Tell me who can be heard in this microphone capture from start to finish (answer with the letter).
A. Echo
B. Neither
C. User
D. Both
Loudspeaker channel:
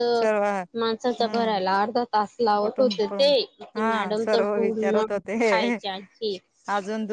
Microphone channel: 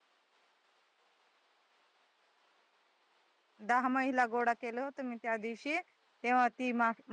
C